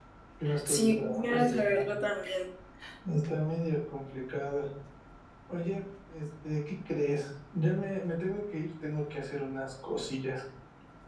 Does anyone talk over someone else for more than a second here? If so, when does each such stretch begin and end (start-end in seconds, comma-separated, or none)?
0.7-1.9